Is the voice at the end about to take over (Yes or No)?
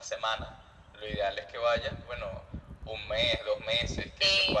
No